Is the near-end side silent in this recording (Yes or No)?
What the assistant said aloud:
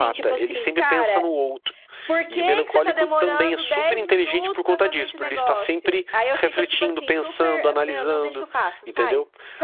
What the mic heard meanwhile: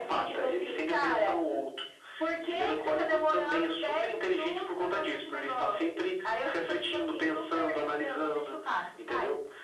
Yes